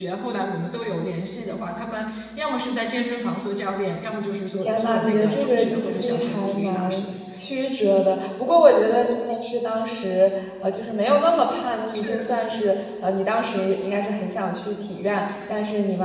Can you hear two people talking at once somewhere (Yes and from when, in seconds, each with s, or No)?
Yes, from 4.6 s